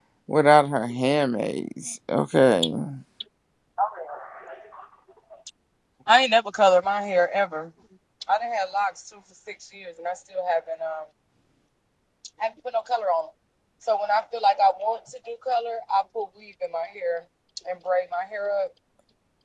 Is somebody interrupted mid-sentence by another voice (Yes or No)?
No